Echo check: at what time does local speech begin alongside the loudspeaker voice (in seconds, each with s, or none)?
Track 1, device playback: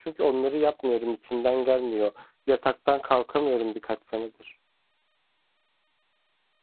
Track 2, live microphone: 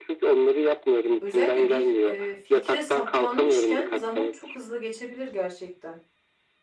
1.2 s